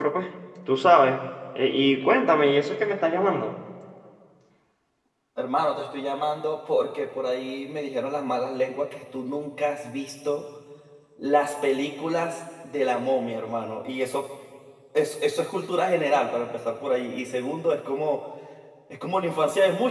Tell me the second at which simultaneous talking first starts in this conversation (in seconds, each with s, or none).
none